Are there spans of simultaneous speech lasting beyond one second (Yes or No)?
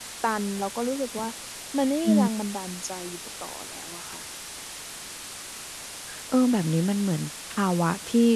No